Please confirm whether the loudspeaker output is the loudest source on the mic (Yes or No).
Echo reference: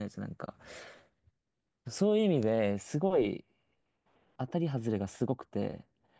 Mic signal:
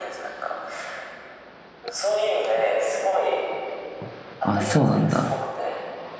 No